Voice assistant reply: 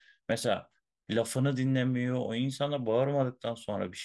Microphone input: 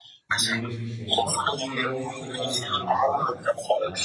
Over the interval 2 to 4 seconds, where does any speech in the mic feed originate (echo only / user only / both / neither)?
both